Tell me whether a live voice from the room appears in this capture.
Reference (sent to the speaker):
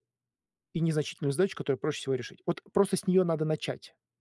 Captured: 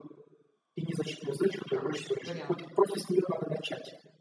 Yes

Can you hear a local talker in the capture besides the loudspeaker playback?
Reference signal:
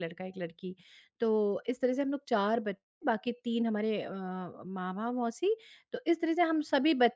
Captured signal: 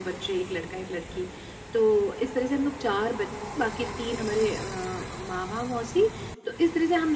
No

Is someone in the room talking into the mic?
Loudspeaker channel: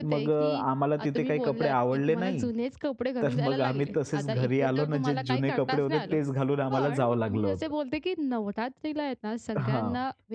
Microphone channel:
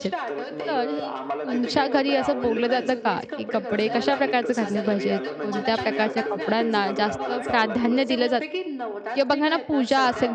Yes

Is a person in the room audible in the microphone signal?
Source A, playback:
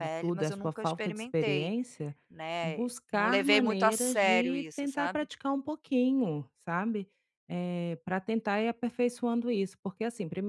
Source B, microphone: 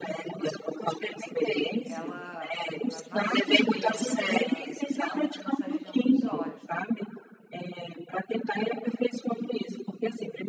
Yes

